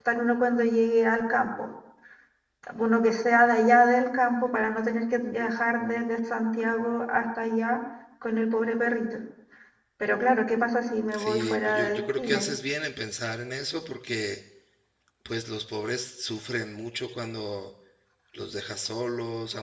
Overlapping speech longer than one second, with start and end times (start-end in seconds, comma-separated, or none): 11.2-12.5